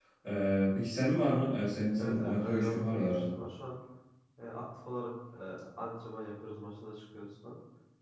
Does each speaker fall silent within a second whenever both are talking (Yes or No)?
No